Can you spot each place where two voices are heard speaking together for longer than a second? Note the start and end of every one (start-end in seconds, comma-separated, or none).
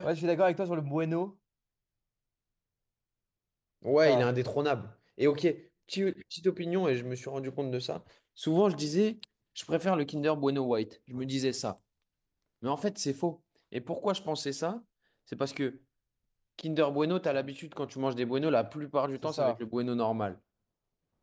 none